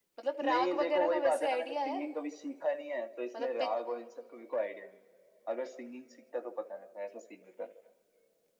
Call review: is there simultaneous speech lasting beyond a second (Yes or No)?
Yes